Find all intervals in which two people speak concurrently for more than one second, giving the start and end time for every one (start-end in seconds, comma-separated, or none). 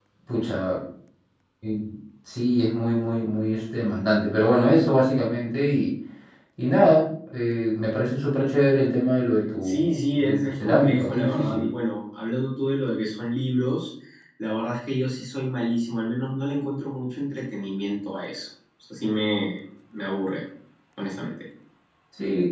9.6-11.7